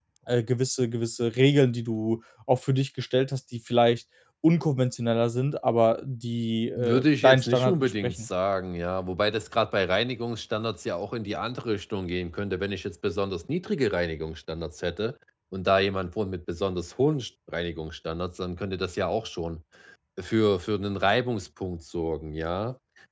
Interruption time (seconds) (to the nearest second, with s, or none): 7 s